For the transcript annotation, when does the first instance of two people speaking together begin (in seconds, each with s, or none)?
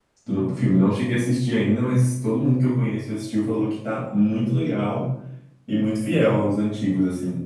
none